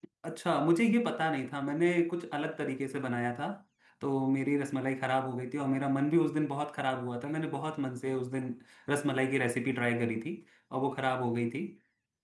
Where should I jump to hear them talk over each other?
none

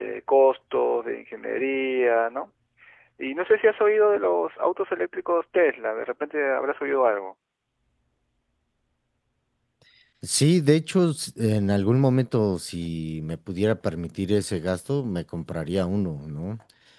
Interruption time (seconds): none

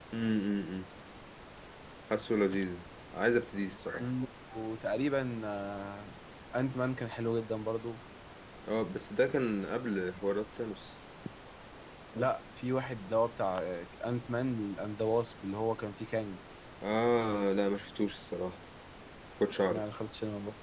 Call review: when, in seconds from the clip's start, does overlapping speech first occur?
none

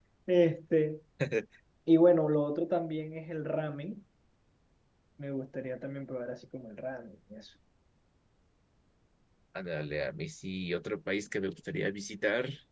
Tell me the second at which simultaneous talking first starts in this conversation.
none

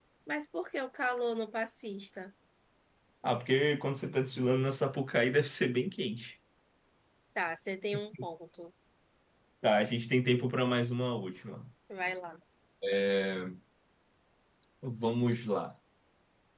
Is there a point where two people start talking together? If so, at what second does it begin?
none

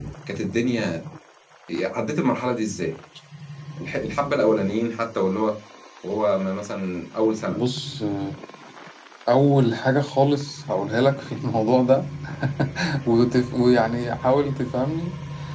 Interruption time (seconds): none

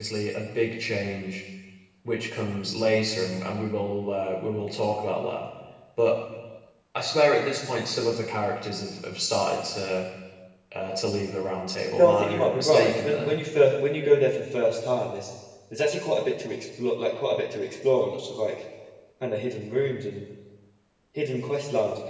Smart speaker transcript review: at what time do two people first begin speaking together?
12.0 s

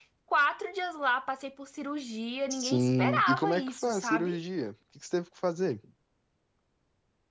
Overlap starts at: 2.5 s

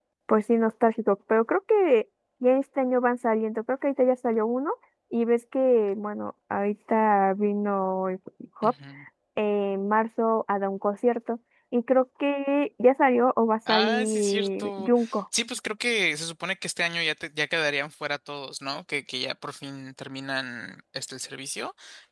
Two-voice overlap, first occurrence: 13.7 s

